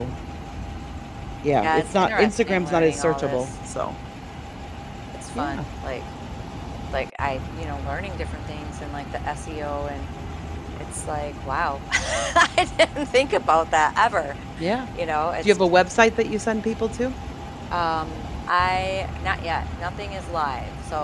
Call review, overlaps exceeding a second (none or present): present